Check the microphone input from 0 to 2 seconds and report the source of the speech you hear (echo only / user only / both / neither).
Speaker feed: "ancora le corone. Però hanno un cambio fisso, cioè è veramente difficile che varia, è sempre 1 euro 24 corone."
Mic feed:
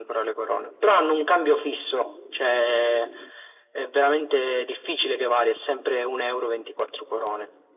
echo only